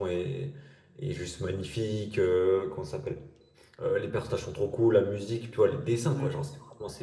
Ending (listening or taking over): listening